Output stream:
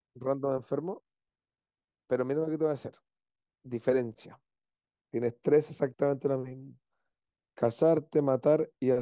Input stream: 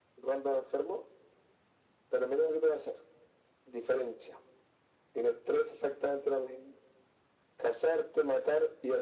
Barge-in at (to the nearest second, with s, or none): none